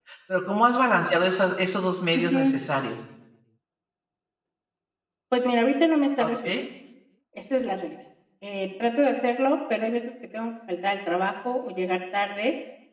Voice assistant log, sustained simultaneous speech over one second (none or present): none